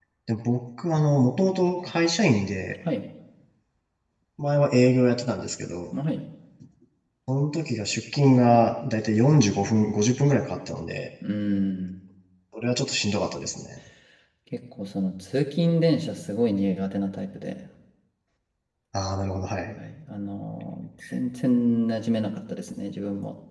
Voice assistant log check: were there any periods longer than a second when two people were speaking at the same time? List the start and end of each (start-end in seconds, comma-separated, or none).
none